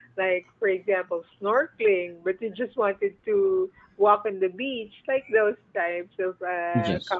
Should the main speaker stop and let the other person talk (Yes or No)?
No